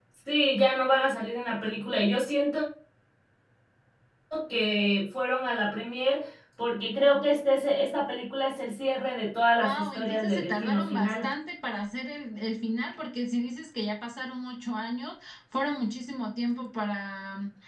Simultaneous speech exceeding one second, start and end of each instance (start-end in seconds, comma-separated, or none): 9.6-11.3